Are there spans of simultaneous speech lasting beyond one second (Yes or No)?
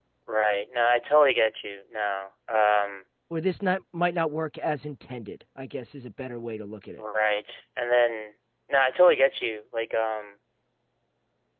No